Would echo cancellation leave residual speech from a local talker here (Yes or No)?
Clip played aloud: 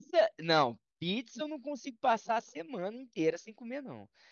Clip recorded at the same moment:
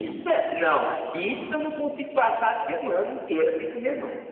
No